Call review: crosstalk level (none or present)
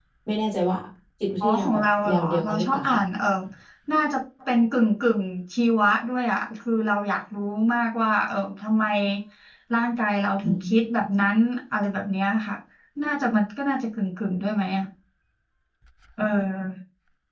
present